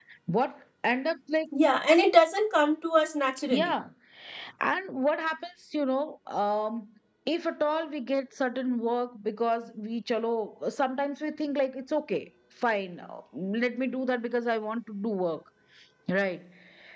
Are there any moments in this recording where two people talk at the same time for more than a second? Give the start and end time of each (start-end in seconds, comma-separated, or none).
none